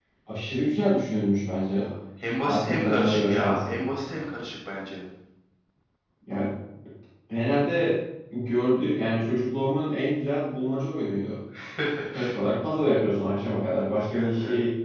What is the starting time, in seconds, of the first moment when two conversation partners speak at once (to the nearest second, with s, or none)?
2 s